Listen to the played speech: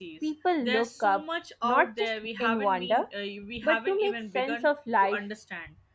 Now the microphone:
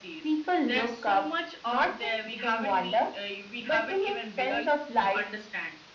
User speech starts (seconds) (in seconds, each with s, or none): 4.5 s